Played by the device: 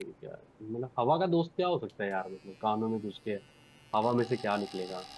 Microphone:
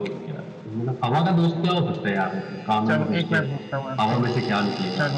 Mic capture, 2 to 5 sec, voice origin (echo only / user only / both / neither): both